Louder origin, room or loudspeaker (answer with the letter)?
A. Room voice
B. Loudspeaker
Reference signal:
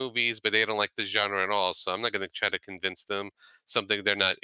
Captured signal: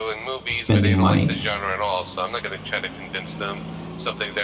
A